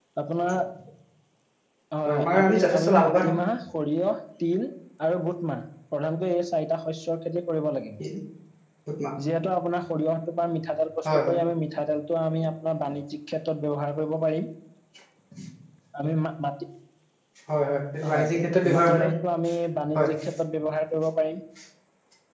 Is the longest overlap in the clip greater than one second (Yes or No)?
Yes